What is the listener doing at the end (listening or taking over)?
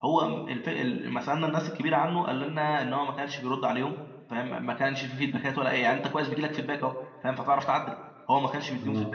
listening